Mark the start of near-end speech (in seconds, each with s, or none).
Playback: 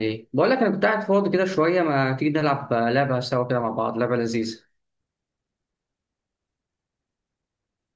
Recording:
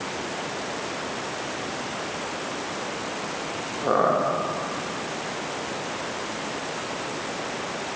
3.8 s